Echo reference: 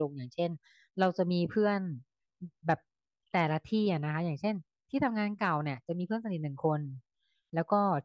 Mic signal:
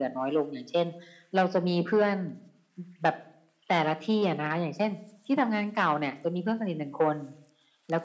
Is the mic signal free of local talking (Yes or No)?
Yes